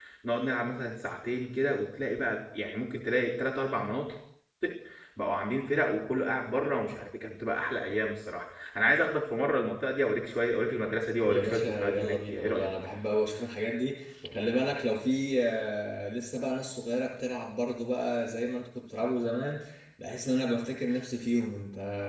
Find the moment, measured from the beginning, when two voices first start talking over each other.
11.2 s

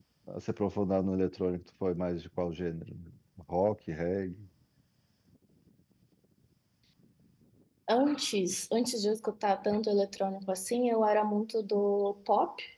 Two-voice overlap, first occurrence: none

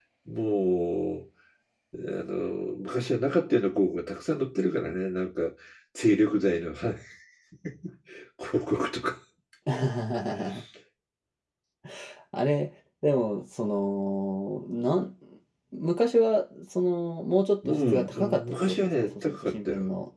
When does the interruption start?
17.6 s

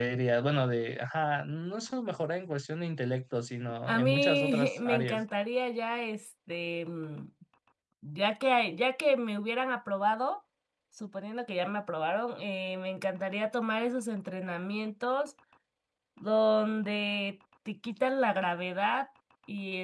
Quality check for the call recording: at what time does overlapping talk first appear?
3.9 s

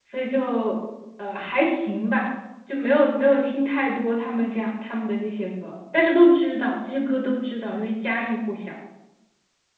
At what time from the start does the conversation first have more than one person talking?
none

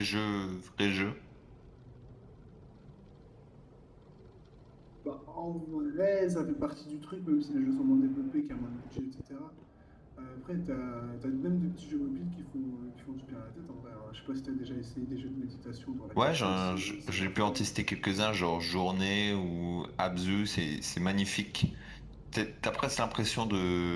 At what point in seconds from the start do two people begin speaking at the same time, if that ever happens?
16.2 s

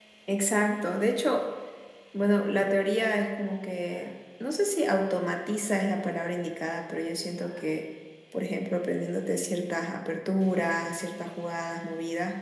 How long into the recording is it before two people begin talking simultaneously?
none

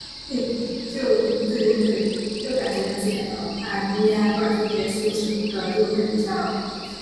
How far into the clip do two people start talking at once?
none

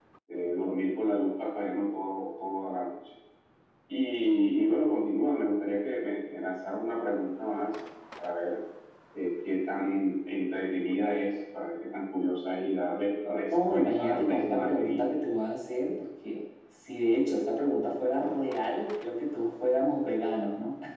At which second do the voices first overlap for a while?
13.5 s

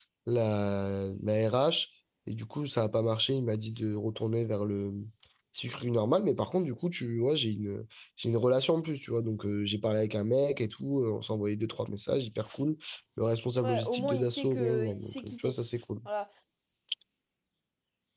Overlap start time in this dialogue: 13.6 s

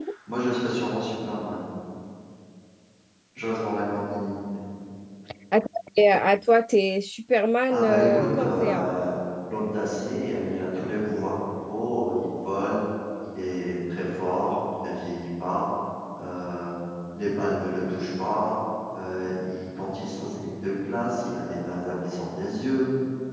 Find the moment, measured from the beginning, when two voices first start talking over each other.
7.7 s

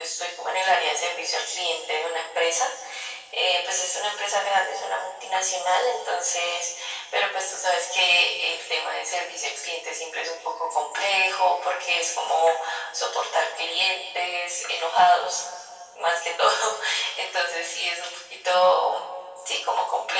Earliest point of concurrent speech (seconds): none

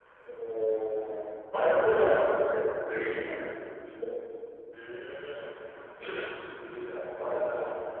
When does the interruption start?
none

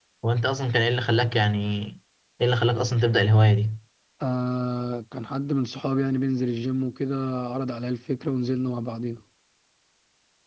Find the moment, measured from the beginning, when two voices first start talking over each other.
none

